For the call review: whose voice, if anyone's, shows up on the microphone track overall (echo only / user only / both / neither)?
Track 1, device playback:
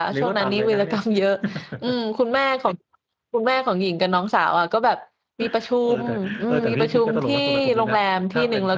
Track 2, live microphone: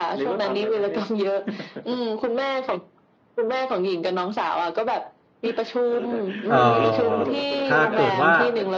both